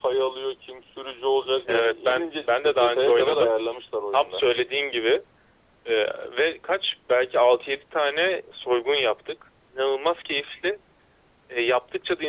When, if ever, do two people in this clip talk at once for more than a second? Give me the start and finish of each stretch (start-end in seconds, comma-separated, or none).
1.7-3.5